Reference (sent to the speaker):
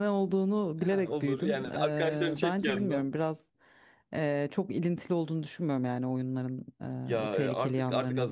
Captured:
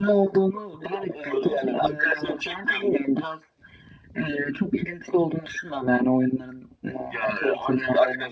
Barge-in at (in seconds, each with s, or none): none